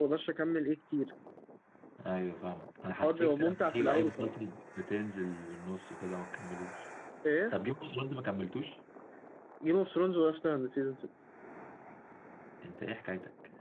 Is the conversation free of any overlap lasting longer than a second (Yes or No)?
No